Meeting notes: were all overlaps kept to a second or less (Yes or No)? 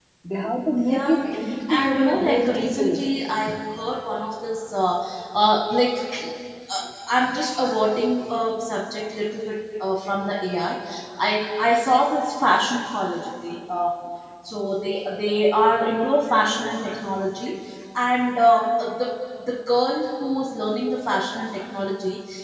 No